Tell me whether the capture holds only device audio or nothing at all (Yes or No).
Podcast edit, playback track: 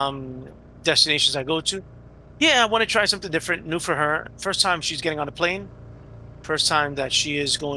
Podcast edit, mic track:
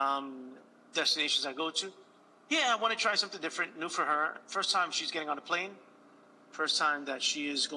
Yes